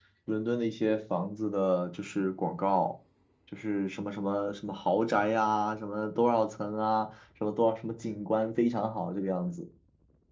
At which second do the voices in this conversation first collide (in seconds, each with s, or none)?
none